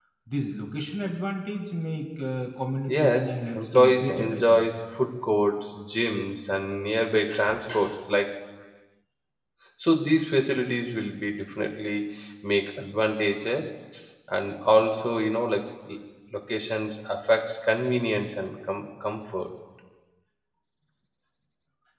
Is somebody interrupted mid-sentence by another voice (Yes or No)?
Yes